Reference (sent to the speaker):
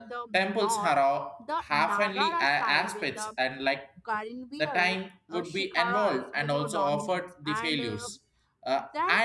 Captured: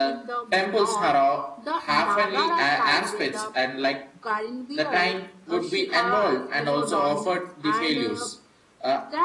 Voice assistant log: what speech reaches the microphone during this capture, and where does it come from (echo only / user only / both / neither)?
echo only